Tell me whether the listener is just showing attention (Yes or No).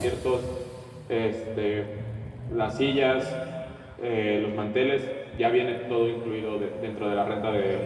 No